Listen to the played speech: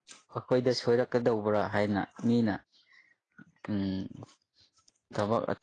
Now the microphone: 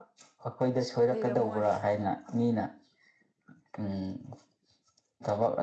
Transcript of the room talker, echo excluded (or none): ꯂꯩꯔꯝꯃꯣꯏ